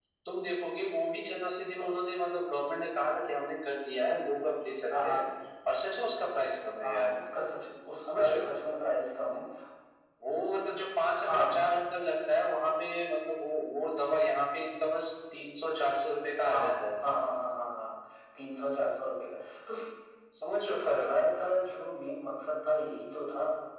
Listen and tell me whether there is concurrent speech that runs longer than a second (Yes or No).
No